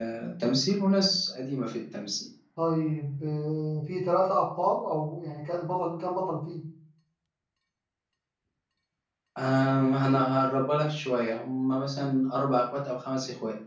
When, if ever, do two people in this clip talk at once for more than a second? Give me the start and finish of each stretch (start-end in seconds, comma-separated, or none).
none